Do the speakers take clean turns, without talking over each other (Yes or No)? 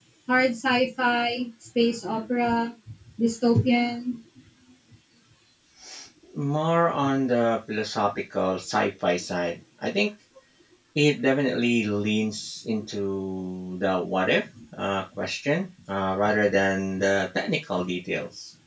Yes